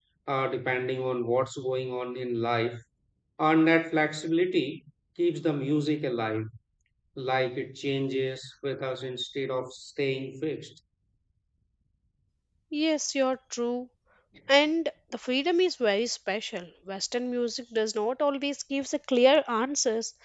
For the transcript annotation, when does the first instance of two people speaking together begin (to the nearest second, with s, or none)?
none